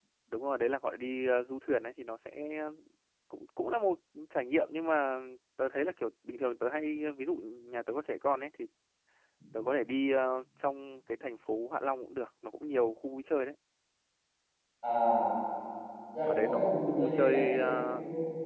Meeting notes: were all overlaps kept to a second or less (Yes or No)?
No